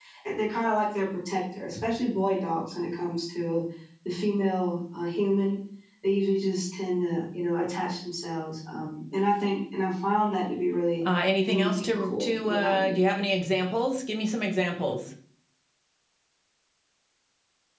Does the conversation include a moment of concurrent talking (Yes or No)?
Yes